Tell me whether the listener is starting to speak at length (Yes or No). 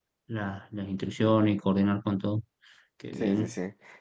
Yes